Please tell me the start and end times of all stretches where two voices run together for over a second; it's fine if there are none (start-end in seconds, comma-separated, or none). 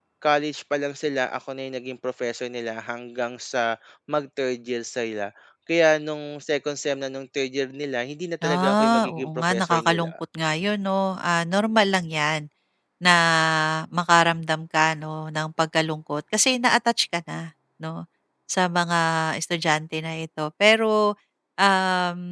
8.4-10.1